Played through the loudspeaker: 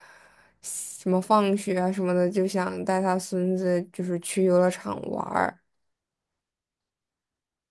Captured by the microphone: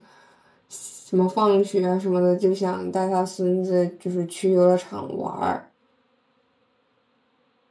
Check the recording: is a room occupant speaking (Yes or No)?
No